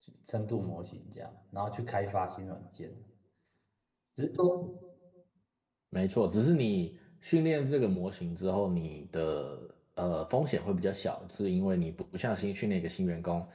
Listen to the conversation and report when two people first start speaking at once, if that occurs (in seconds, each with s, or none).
none